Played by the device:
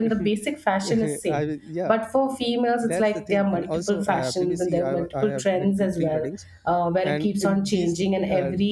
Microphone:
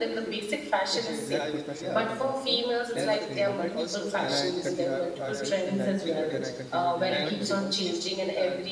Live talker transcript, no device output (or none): black kurta shalwar in one cloth in one in one wedding then i continued in the same and then then i continued in the third wedding also